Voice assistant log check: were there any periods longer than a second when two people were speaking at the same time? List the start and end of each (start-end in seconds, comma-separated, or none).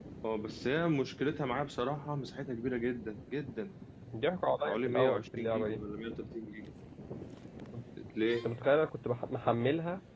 4.6-5.8